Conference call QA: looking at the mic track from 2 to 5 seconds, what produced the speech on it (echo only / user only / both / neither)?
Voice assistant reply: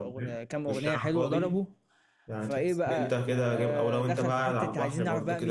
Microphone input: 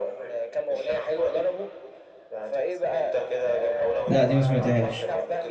both